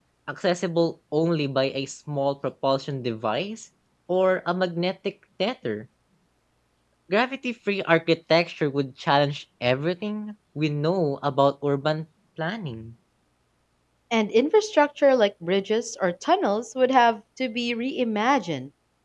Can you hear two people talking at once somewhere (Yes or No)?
No